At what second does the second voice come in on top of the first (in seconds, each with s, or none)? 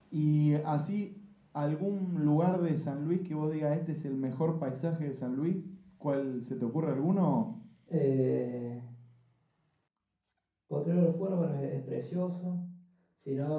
none